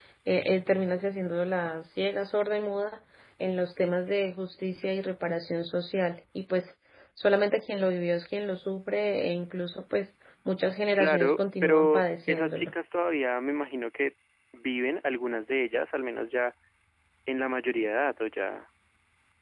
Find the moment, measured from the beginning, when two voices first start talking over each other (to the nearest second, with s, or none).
11 s